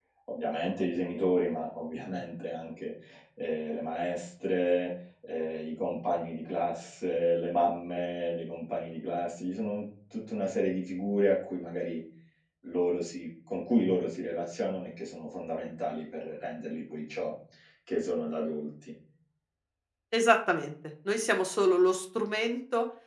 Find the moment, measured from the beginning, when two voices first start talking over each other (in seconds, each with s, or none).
none